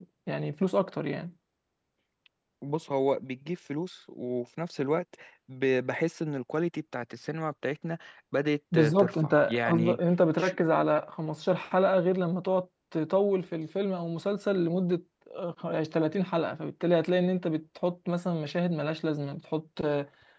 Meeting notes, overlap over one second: present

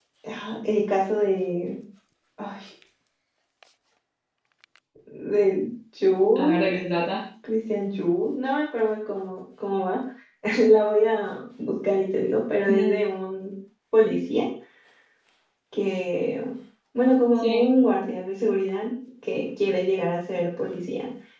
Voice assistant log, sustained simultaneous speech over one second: none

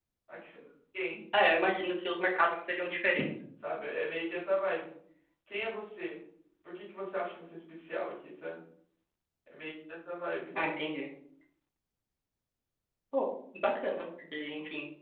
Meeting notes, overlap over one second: none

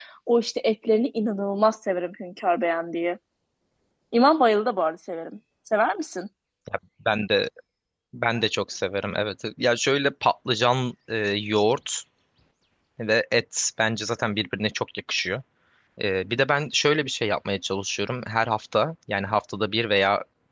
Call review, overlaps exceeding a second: none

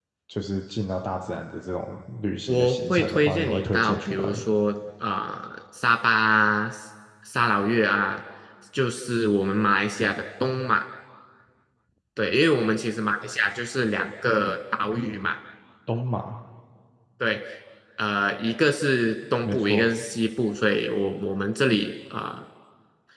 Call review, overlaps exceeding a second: present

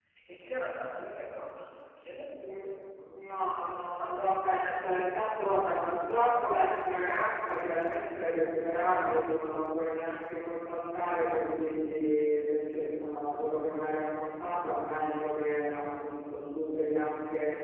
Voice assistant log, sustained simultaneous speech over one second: none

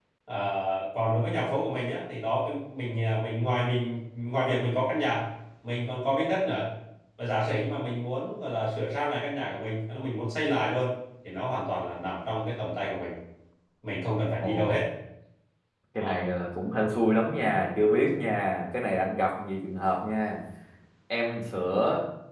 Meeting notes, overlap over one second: none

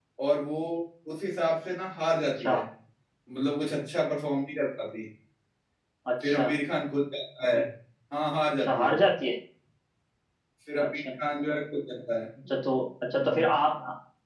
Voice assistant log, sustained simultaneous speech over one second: none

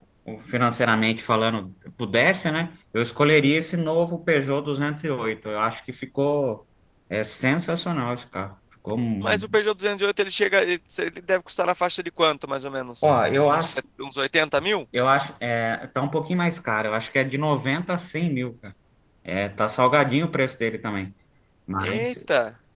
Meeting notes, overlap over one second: none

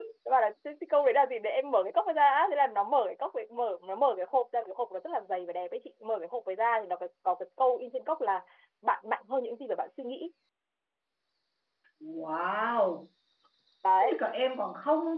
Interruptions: none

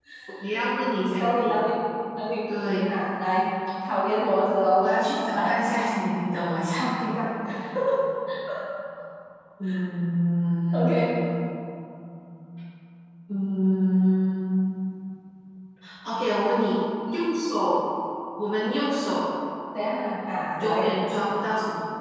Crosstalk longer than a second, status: none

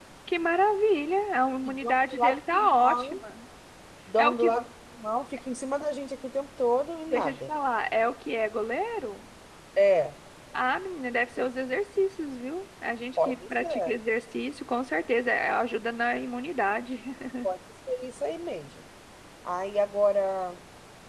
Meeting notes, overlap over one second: present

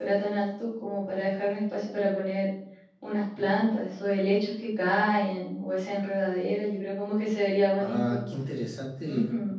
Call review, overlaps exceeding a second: none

